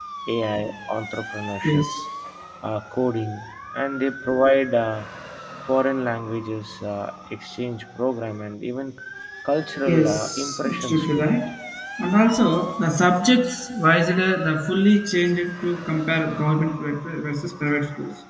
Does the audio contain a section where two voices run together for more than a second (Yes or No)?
Yes